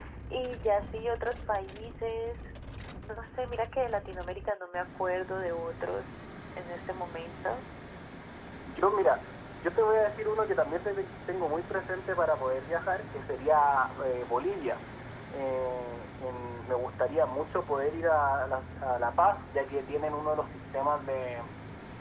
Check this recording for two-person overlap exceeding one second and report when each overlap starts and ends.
none

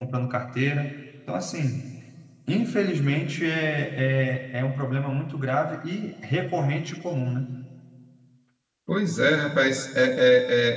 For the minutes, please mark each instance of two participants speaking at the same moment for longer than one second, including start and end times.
none

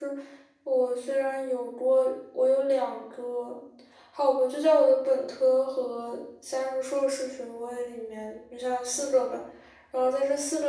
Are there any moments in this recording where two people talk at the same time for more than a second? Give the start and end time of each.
none

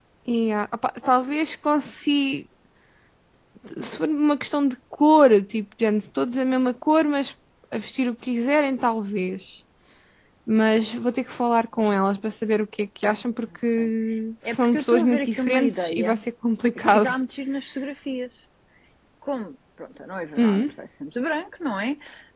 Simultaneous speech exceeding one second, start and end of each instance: 14.5-16.2

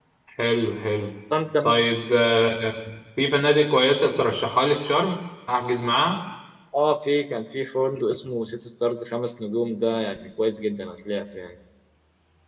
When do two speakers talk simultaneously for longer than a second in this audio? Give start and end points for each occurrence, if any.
none

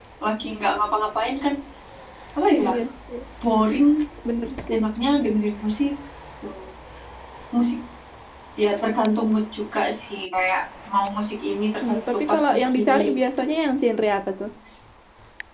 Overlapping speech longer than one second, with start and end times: 11.8-13.4

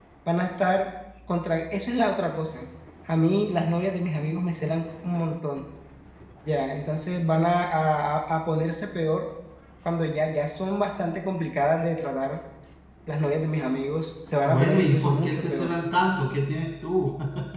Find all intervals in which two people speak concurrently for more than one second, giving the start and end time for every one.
14.4-15.7

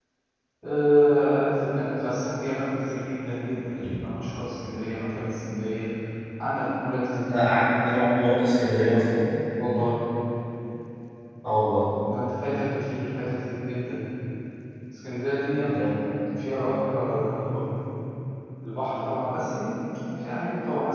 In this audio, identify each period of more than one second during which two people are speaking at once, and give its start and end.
none

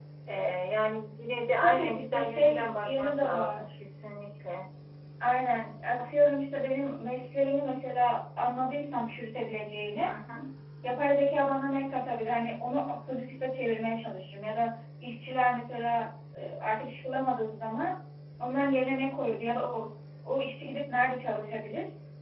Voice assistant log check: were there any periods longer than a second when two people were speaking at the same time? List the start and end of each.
1.6-3.7

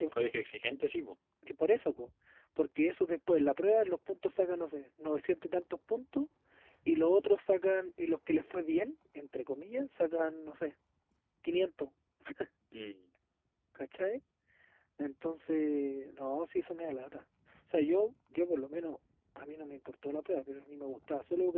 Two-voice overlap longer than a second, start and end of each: none

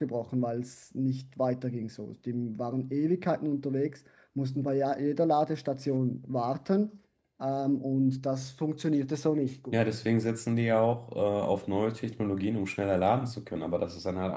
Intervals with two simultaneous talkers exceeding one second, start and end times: none

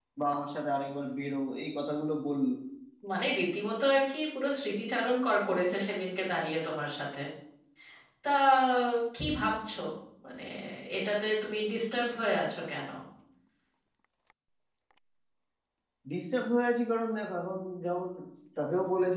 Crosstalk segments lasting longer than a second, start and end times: none

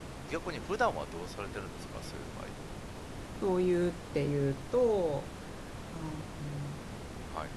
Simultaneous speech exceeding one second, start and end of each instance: none

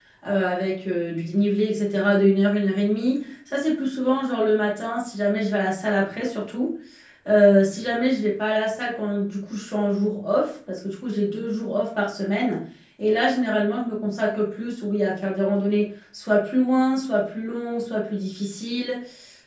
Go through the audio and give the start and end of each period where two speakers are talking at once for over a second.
none

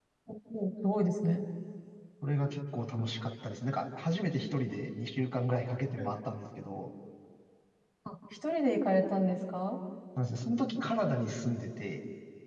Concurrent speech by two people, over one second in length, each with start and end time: none

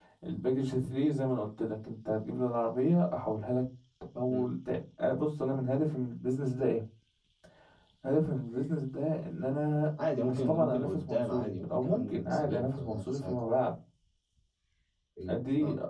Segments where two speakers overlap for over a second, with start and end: 10.2-13.4

